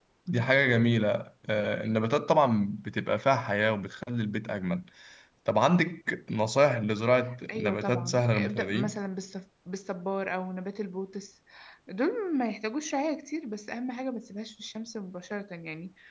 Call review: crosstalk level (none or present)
present